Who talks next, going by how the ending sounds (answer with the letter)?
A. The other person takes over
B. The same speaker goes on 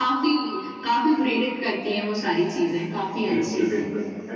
A